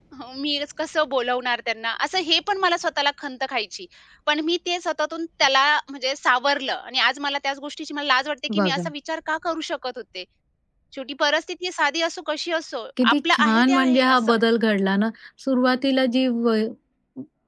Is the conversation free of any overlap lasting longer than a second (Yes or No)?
No